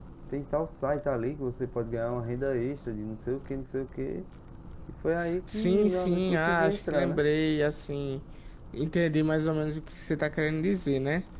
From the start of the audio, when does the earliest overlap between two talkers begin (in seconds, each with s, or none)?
5.5 s